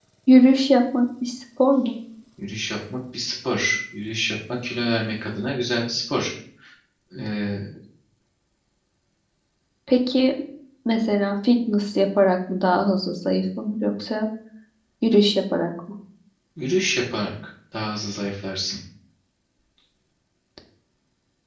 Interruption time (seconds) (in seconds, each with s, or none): none